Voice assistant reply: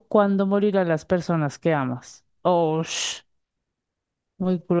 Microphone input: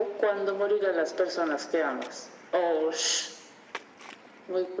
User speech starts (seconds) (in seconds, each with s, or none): none